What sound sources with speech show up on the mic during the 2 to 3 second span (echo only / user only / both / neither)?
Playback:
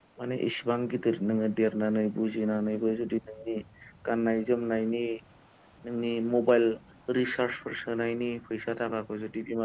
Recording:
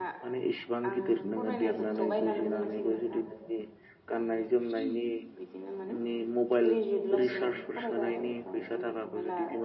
both